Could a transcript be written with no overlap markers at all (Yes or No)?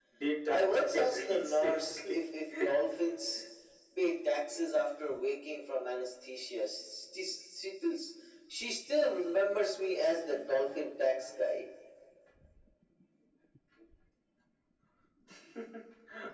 No